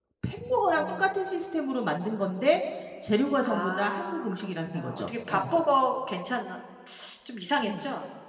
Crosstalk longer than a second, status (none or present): present